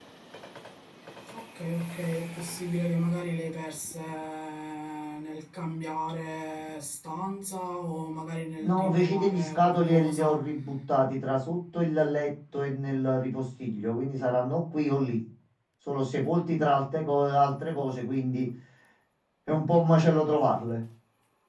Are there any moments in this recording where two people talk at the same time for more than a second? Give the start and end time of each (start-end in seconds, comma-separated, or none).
8.6-10.4